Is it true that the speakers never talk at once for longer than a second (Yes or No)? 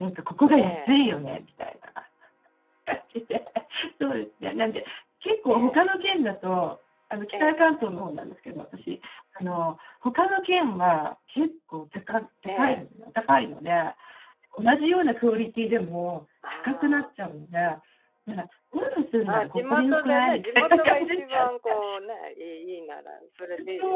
No